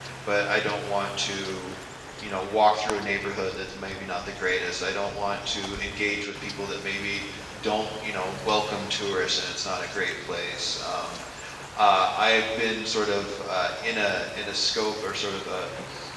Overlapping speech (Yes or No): No